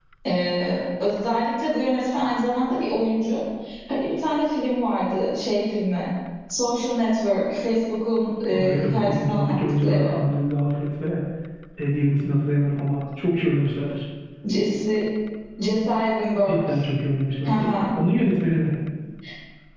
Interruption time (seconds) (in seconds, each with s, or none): 8.5 s